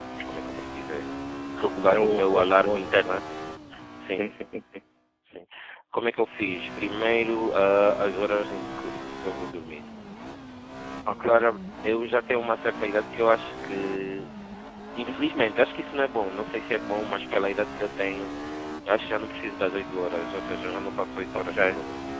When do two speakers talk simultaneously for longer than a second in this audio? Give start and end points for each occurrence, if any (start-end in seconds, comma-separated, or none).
1.9-3.2